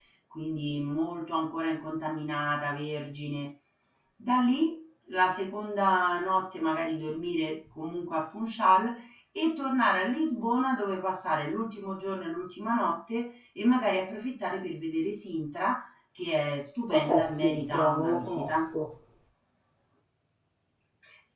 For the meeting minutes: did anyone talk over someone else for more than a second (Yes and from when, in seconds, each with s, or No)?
Yes, from 16.9 s